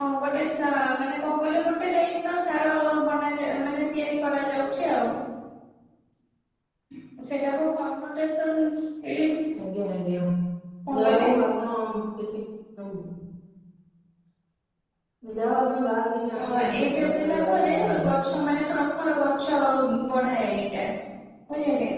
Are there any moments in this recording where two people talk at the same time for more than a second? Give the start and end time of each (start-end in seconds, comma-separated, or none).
16.4-18.1